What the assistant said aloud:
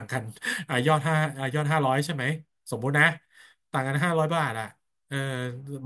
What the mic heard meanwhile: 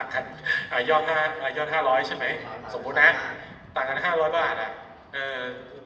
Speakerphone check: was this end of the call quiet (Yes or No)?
No